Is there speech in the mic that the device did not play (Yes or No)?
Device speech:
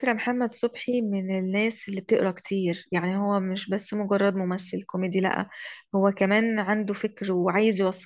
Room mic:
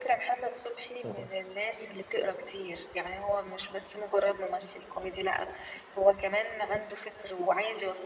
Yes